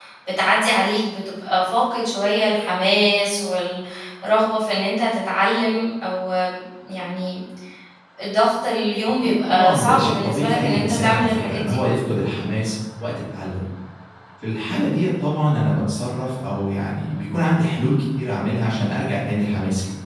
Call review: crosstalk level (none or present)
present